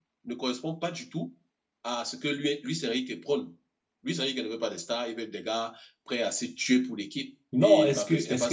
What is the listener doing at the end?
taking over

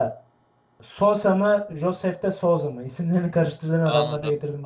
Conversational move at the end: taking over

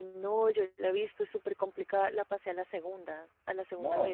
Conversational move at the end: taking over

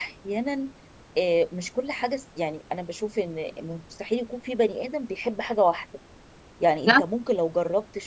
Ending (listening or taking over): listening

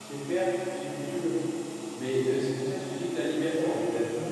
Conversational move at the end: taking over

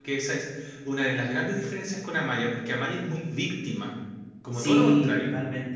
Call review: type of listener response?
taking over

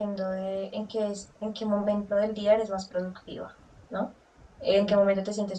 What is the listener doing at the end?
listening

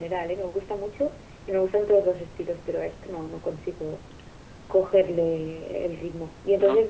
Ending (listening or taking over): listening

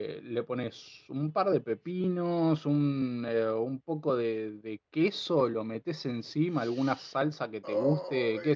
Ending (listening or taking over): listening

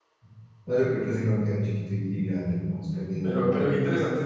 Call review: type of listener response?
taking over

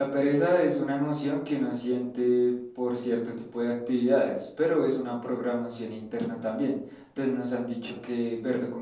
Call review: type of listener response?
listening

